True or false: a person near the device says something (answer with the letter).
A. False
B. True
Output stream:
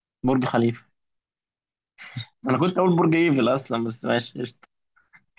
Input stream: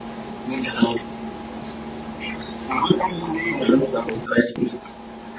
A